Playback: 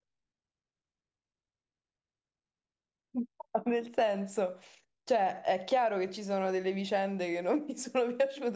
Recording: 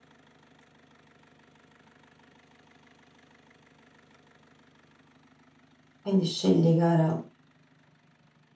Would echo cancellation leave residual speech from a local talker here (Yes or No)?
Yes